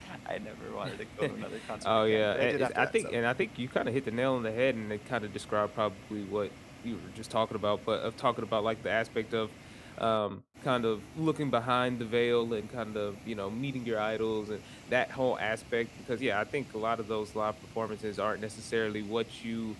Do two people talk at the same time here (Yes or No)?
Yes